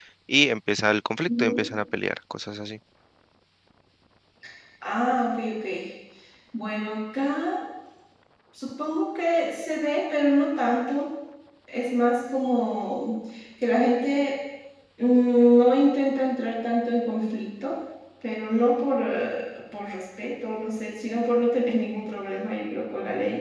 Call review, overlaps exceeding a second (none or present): none